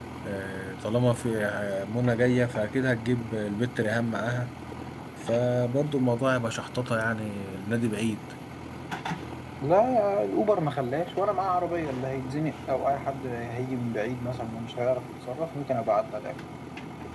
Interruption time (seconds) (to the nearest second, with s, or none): none